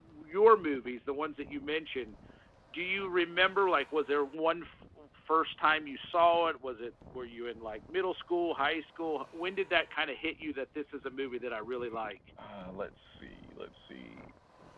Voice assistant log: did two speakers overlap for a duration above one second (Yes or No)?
No